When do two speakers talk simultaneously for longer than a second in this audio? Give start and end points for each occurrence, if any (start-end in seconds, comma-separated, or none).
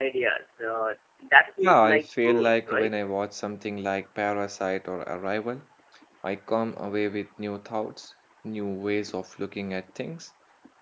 1.6-2.9